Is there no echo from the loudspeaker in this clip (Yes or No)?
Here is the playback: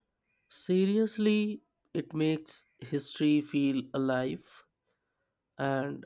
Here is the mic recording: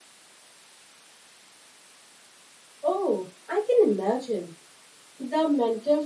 Yes